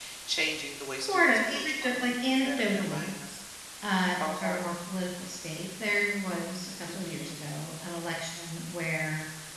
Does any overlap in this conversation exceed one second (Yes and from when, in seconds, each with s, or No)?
Yes, from 1.0 s